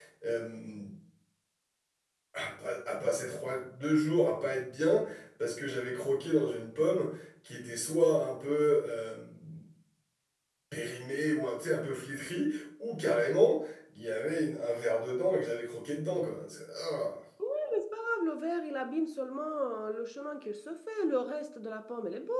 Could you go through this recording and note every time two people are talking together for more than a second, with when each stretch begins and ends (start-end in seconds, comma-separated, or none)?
none